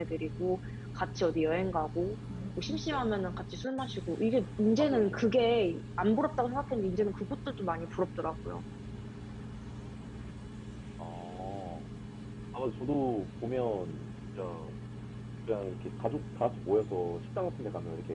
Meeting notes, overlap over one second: none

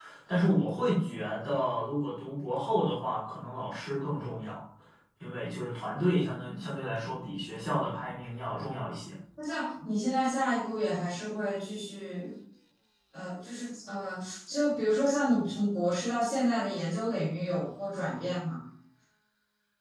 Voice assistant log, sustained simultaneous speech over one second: none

